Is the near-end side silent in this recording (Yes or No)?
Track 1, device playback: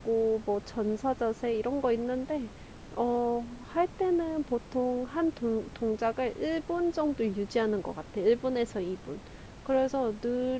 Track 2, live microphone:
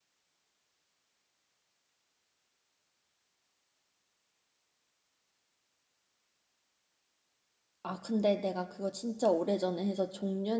No